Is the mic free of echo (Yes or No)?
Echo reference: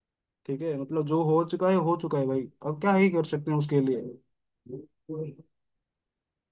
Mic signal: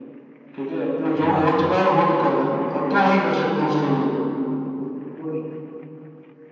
No